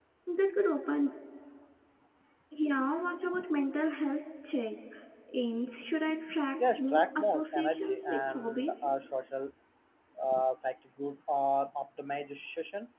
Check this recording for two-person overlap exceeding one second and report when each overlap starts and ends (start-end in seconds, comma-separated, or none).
6.7-8.8